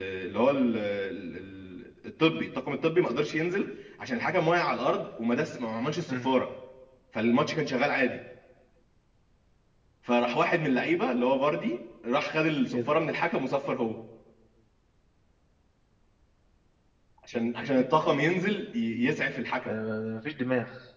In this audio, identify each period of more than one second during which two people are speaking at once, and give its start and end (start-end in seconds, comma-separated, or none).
none